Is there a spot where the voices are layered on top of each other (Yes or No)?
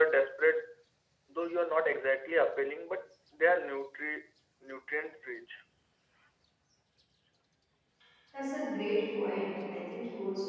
No